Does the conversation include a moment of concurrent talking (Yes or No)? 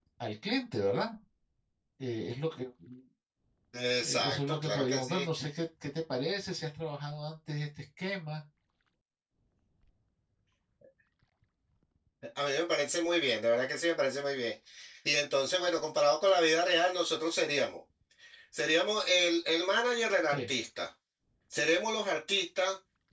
Yes